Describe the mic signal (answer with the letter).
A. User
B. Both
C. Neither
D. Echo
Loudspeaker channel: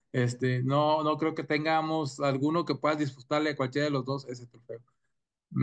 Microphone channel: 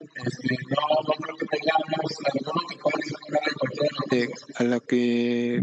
B